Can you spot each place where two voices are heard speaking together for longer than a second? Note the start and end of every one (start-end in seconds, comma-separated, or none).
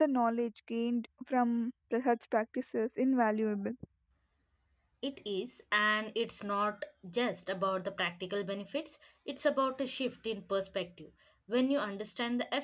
none